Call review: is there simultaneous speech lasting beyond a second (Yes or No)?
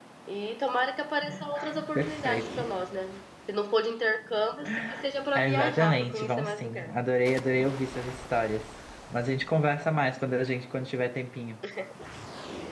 Yes